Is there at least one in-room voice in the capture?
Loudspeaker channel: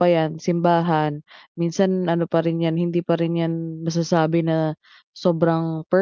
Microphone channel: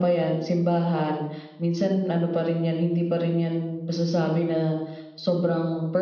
No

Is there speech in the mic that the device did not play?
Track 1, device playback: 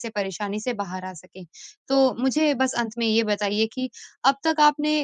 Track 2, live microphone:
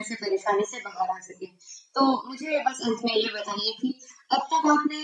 No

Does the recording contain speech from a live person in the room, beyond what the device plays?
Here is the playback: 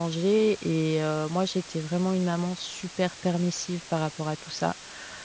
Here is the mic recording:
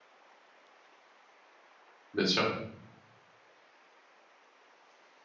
Yes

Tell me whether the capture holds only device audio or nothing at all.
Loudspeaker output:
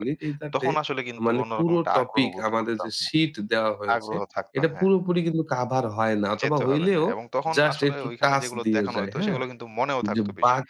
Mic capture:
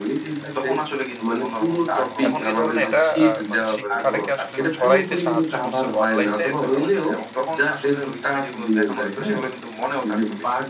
No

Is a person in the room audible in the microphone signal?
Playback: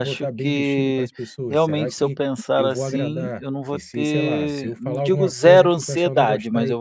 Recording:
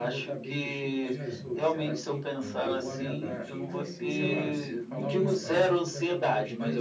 Yes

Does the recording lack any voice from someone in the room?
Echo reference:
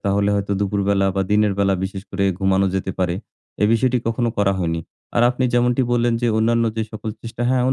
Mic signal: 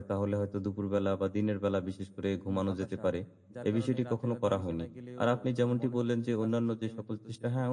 No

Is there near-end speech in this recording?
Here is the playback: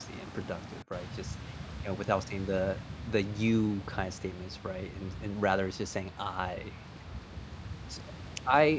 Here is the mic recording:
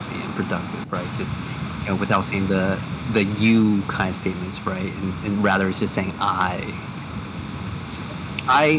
No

